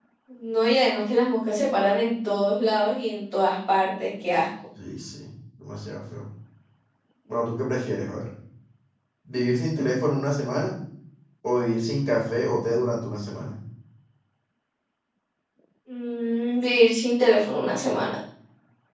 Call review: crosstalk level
none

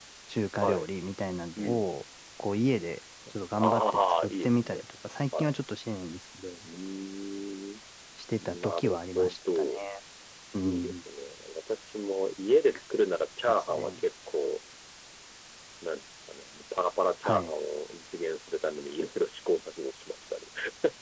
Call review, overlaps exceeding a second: present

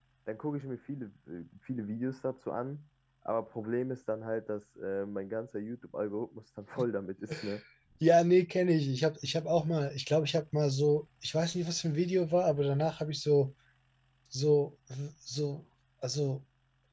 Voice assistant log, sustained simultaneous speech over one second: none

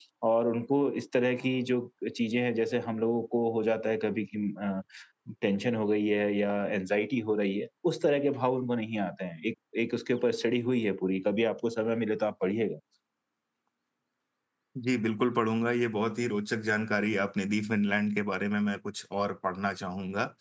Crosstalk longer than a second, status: none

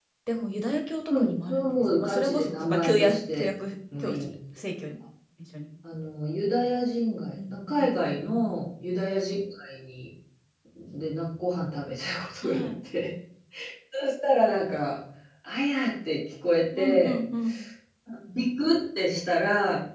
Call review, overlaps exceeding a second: present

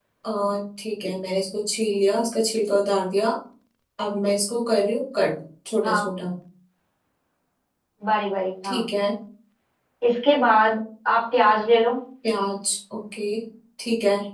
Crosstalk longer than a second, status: none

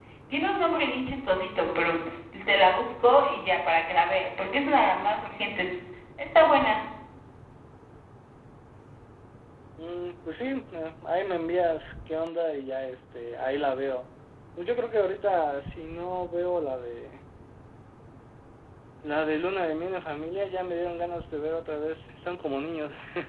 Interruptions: none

